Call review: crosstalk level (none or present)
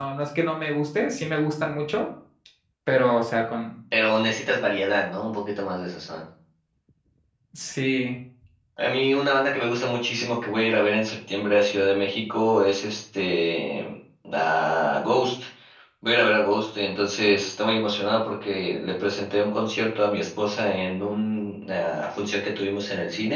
none